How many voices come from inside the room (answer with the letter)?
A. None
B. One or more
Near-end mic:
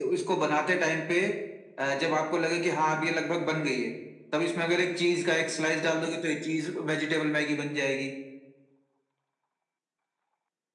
A